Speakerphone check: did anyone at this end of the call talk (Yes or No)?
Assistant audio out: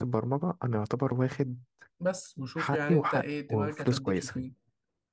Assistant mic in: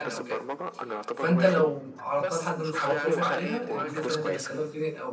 Yes